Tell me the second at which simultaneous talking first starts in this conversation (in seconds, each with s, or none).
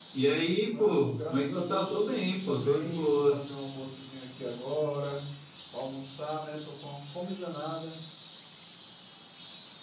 0.7 s